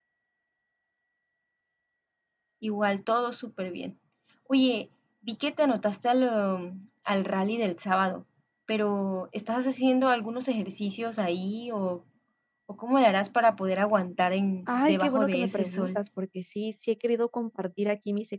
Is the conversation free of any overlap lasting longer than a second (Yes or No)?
No